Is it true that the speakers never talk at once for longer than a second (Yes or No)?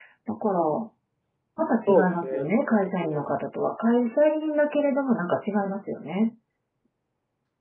No